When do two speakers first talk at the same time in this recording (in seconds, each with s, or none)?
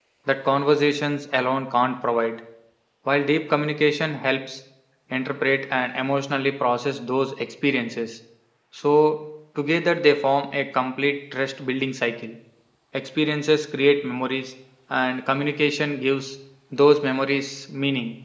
none